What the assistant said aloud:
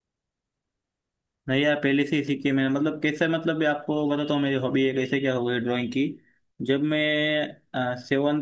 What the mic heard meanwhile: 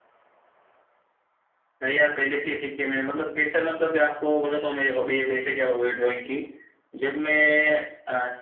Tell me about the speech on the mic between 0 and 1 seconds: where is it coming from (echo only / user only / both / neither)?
neither